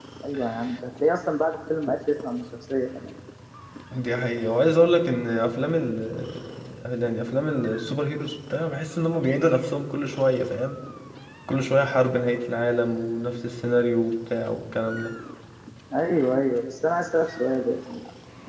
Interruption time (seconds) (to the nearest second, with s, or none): none